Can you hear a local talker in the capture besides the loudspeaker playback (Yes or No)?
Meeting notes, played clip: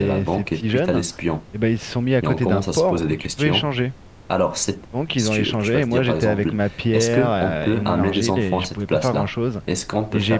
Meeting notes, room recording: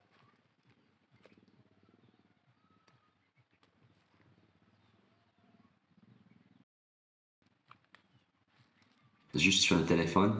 Yes